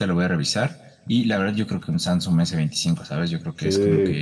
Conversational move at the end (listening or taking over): taking over